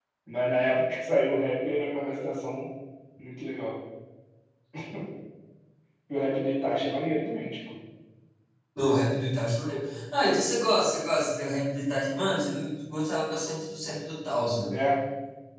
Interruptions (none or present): none